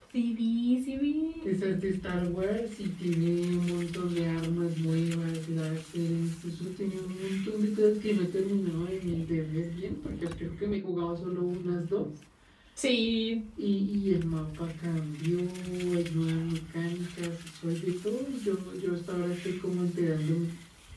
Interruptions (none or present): none